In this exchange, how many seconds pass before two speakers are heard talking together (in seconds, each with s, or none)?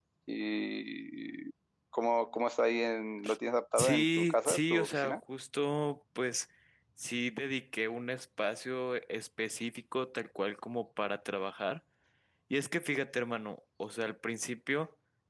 3.8 s